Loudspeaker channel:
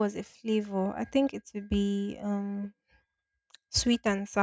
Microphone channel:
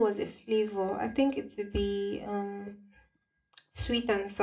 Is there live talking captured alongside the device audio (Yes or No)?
No